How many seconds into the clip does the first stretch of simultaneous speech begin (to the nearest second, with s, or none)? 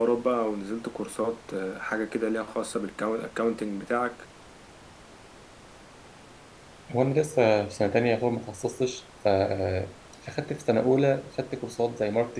none